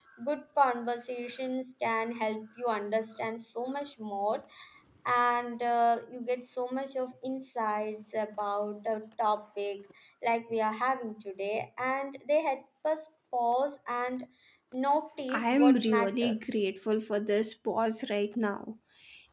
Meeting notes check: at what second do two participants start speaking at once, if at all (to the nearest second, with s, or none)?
15 s